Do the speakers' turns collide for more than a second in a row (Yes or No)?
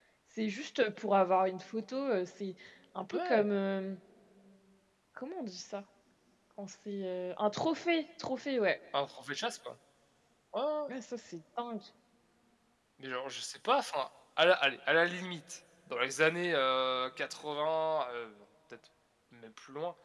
No